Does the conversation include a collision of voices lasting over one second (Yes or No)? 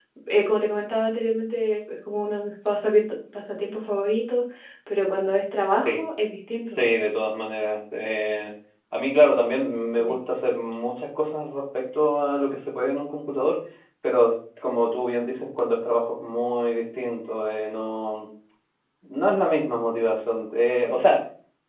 No